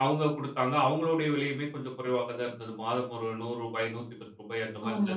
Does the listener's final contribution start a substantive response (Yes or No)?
Yes